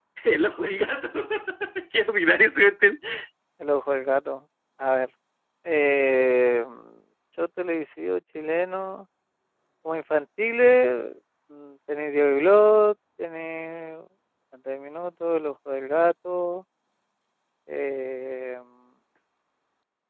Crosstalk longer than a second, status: none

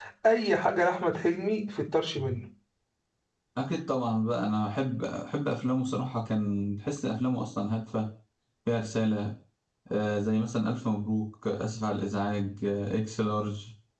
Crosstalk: none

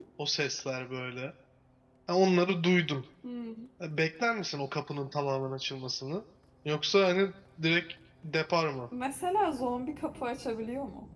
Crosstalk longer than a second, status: none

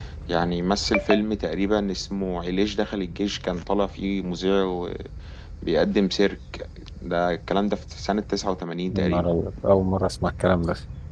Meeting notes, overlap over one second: none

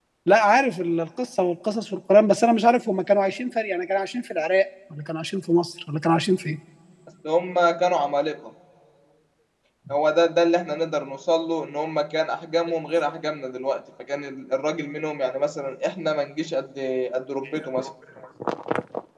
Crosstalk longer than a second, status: none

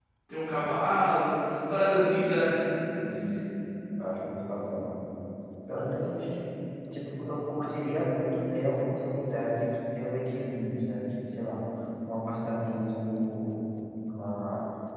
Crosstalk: none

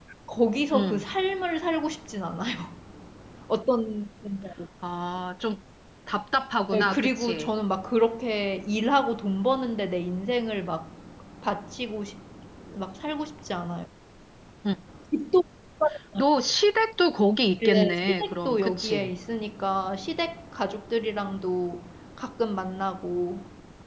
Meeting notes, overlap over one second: present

